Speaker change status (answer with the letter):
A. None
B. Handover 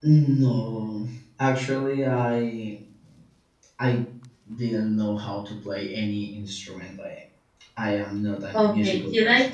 B